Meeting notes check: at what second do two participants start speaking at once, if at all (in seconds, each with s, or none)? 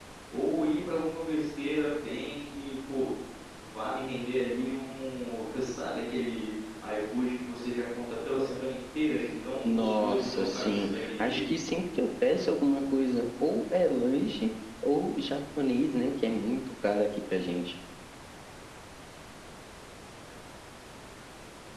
9.6 s